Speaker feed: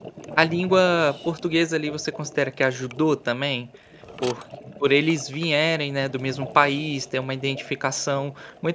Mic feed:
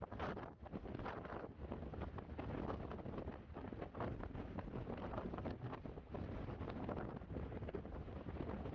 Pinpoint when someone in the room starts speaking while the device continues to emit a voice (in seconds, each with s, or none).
none